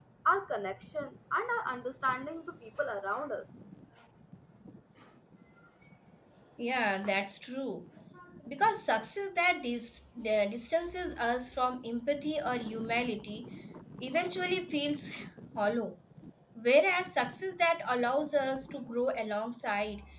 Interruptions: none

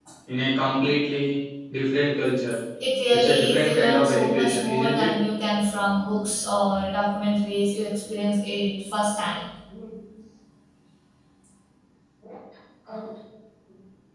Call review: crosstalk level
present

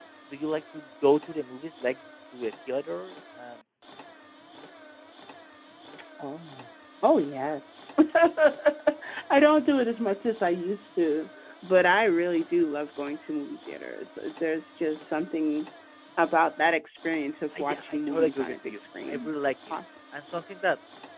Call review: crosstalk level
present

